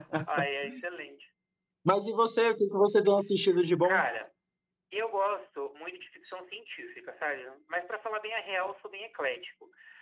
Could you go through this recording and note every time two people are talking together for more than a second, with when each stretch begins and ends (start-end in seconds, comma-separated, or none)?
none